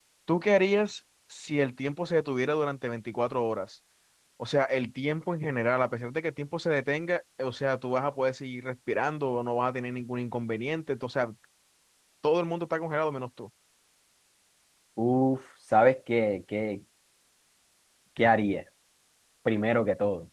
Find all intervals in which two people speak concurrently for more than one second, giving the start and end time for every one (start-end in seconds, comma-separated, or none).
none